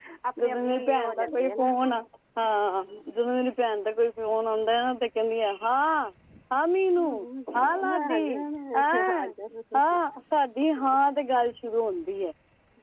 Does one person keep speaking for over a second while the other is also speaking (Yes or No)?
Yes